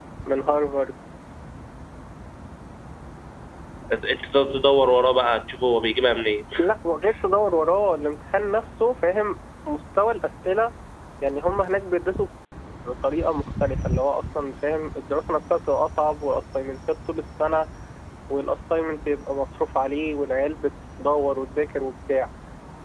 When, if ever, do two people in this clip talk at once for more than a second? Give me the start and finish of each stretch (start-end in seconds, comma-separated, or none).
none